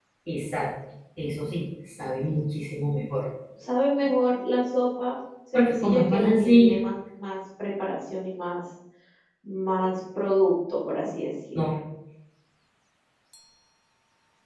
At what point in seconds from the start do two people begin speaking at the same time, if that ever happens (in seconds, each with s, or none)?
5.5 s